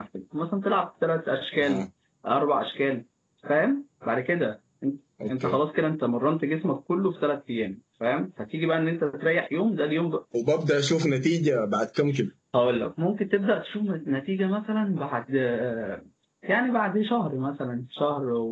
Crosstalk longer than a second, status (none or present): none